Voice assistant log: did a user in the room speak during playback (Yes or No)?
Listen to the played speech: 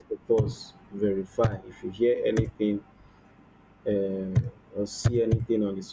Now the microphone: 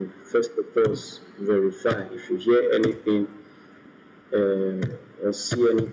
No